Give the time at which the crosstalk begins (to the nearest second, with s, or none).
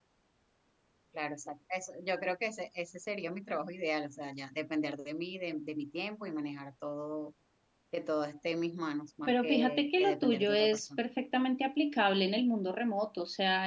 9 s